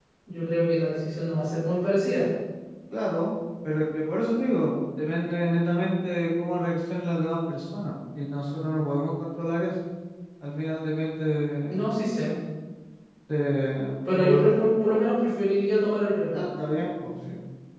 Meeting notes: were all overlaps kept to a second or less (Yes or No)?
Yes